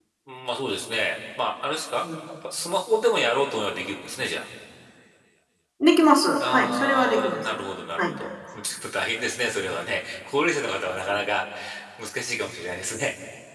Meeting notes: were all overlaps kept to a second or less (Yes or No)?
No